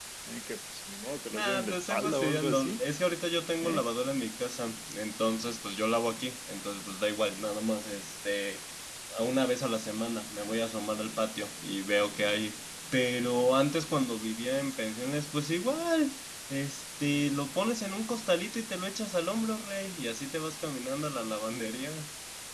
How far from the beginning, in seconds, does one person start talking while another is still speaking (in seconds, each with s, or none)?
1.3 s